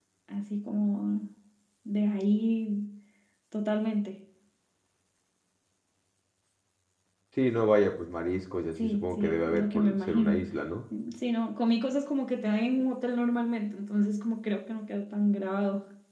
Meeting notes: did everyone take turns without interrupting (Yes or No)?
No